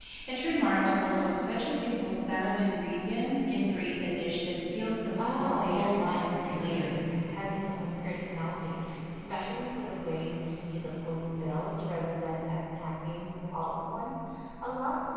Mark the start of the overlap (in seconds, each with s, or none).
5.0 s